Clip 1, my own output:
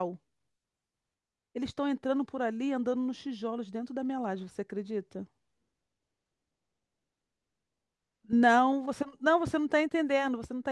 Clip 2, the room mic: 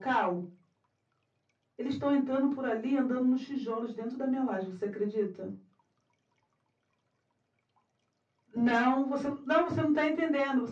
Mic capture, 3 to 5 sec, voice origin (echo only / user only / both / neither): echo only